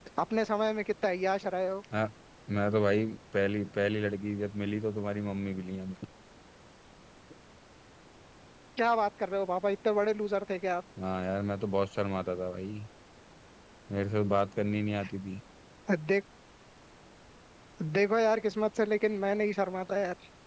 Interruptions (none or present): none